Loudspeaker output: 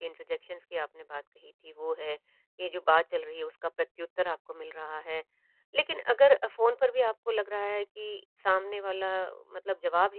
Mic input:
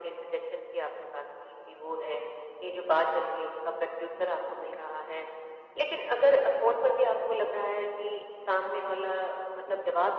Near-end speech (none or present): none